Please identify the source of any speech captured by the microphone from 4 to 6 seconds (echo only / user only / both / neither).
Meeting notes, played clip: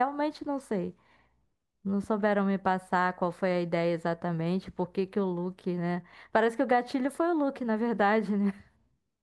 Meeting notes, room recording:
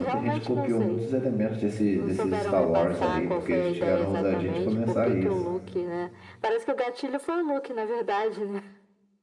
both